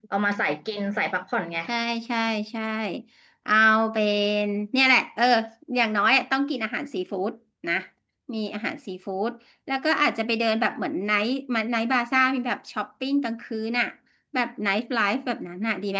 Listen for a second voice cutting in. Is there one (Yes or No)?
No